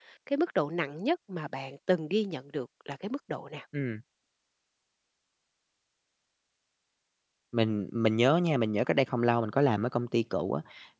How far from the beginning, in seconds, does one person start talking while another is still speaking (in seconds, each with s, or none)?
none